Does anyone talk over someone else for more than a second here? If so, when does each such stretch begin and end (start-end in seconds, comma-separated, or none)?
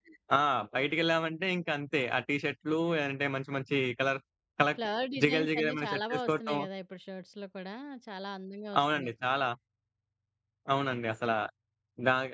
5.2-6.6